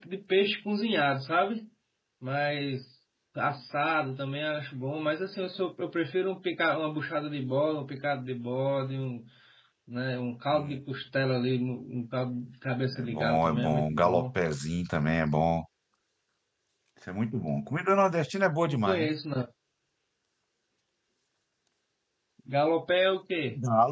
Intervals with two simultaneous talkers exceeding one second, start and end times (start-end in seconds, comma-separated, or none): 13.0-14.3